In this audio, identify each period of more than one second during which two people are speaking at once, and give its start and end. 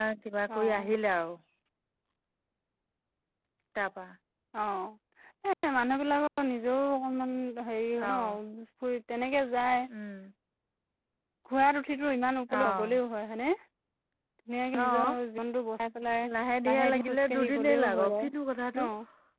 16.7-18.3

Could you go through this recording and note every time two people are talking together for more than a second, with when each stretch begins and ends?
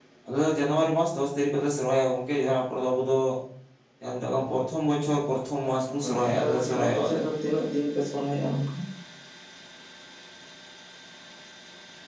6.0-7.2

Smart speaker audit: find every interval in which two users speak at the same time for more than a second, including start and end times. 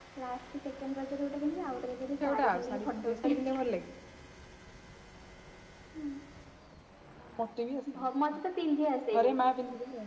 2.2-3.6

